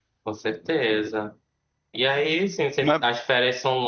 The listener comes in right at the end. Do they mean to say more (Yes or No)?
No